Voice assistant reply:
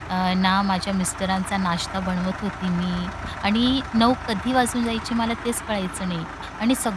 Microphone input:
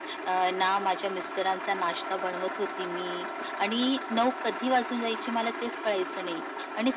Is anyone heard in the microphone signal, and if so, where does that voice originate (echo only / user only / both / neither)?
echo only